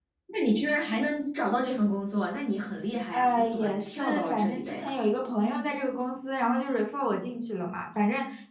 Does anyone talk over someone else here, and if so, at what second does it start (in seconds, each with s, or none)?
3.1 s